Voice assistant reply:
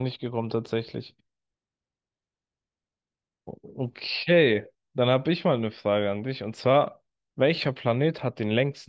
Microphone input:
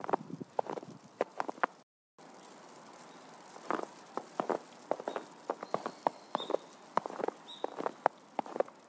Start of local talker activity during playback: none

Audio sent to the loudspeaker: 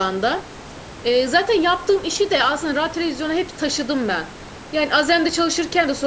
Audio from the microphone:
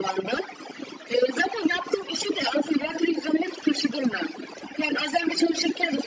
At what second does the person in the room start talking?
none

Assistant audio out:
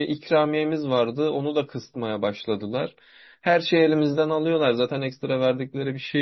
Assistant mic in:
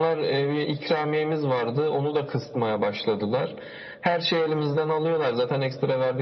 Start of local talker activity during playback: none

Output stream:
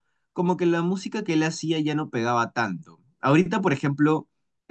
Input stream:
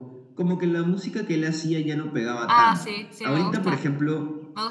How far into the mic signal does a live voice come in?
2.5 s

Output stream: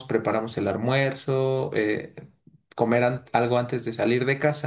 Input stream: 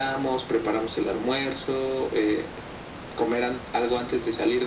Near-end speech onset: none

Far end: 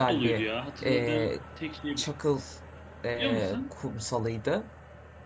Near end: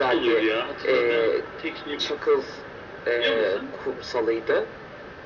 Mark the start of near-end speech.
none

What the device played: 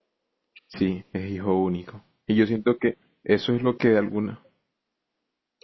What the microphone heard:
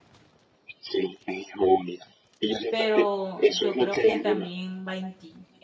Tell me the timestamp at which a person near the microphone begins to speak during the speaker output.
2.7 s

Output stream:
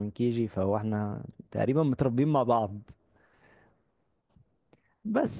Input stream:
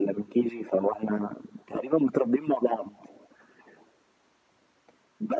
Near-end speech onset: none

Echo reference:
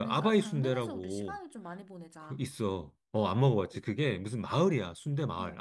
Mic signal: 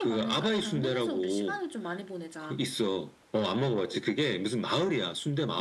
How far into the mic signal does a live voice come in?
none

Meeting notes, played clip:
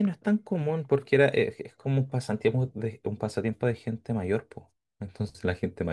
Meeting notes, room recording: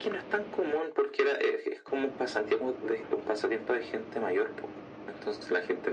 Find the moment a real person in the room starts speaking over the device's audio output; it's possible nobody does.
none

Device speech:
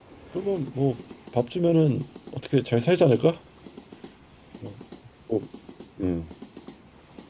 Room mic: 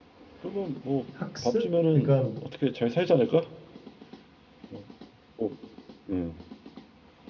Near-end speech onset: 1.1 s

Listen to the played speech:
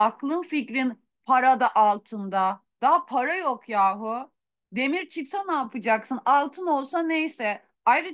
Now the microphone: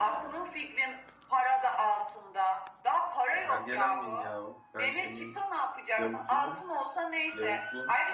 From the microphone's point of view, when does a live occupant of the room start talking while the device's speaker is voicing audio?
3.3 s

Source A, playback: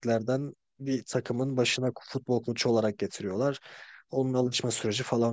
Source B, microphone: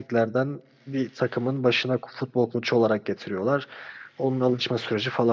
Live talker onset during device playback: none

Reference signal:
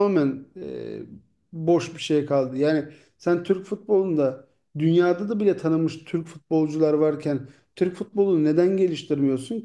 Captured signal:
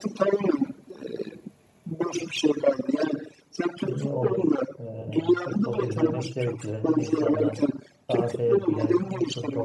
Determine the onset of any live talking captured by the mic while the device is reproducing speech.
3.8 s

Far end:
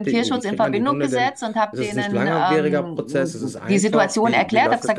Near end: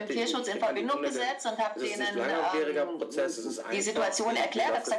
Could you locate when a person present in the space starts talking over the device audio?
none

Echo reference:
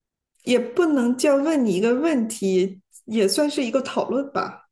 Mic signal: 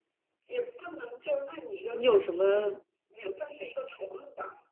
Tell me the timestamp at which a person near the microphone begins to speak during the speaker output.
1.9 s

